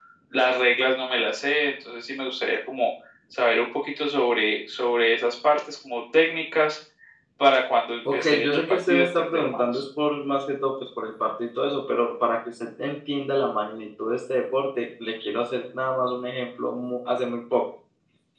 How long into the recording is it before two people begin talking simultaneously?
8.1 s

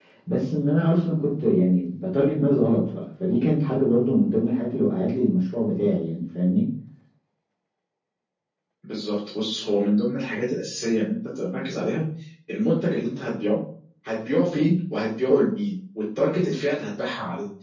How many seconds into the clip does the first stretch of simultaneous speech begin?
none

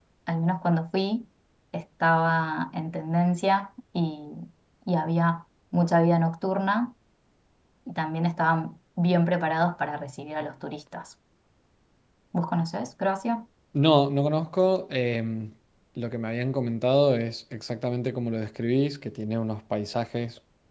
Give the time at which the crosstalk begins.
none

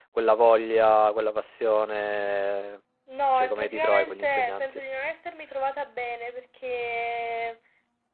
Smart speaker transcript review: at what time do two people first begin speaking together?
3.4 s

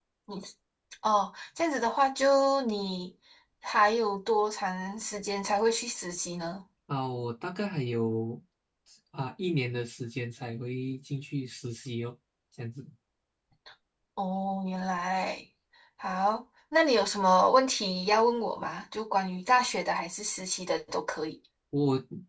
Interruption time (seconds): none

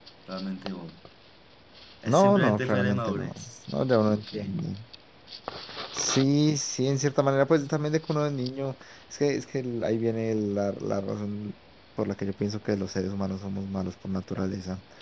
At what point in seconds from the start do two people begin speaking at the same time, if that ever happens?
2.1 s

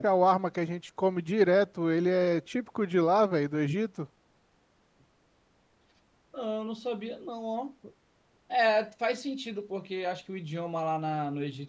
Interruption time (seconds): none

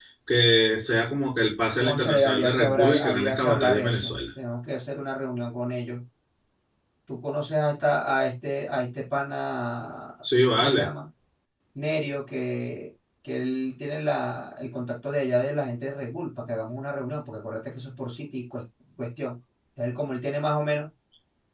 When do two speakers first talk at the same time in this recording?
1.8 s

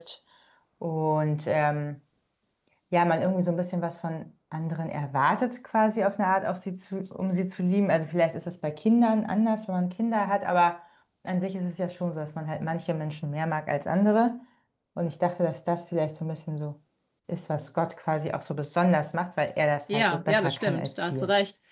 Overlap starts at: 19.9 s

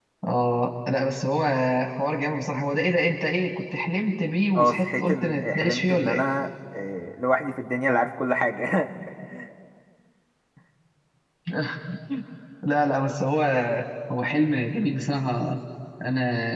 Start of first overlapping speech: 4.5 s

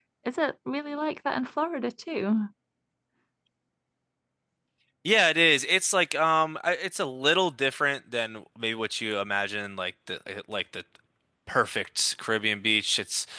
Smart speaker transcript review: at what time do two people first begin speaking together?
none

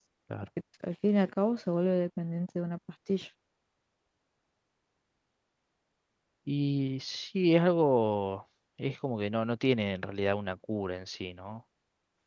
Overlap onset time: none

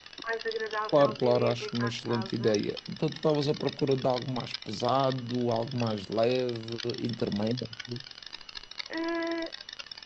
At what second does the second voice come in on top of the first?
0.9 s

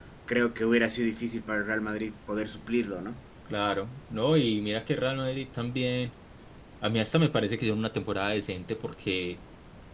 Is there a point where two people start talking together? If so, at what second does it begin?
none

